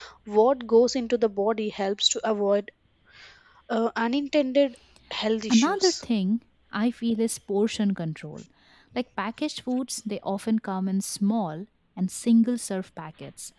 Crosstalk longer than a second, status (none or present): none